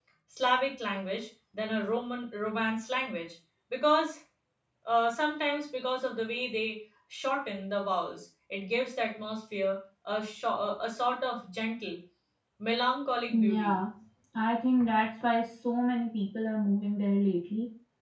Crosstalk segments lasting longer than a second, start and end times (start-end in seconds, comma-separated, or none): none